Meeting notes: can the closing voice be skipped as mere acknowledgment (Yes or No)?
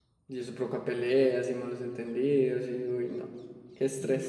No